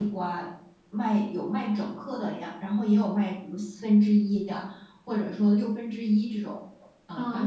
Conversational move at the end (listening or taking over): taking over